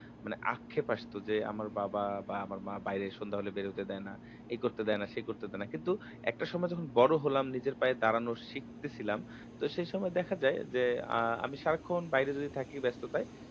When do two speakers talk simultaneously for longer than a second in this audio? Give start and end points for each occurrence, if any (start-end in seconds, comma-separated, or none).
none